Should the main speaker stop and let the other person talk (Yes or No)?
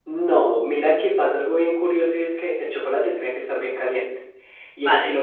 No